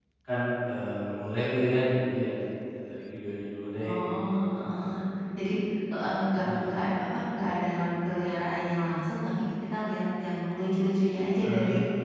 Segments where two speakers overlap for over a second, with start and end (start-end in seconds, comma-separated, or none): none